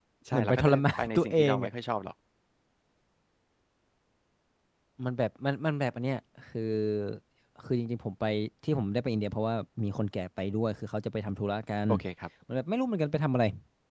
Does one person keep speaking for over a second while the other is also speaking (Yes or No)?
Yes